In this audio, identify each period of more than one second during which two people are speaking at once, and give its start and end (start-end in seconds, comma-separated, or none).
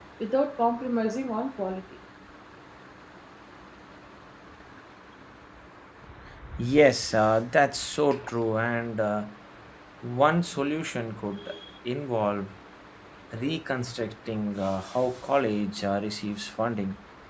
none